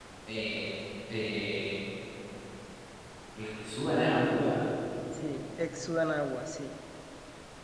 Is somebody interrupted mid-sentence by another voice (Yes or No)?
No